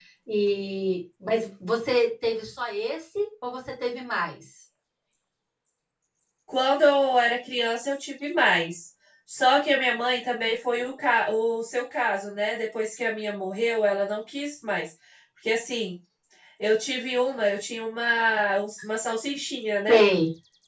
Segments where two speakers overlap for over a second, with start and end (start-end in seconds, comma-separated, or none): none